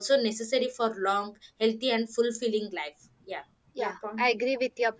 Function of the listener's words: taking over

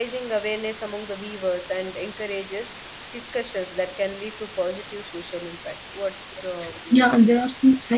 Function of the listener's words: taking over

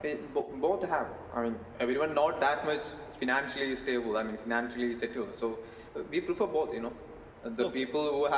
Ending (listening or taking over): listening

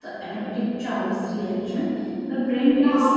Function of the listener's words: taking over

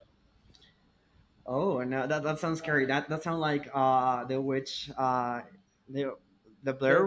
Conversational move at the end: taking over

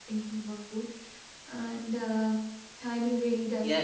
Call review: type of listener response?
taking over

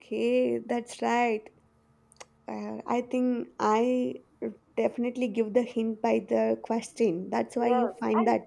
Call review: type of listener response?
taking over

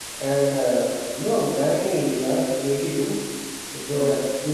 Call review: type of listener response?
listening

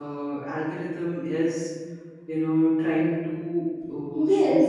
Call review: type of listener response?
taking over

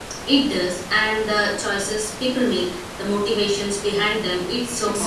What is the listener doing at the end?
taking over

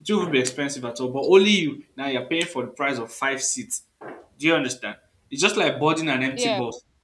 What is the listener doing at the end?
listening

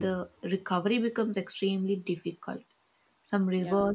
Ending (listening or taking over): listening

